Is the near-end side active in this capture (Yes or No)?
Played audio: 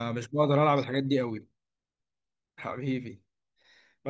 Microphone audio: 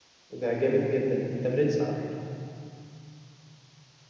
Yes